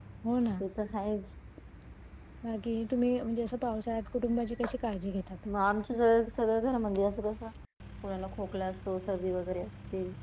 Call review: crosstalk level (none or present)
none